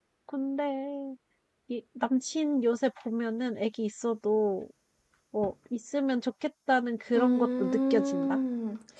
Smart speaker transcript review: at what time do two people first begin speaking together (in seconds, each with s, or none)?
7.2 s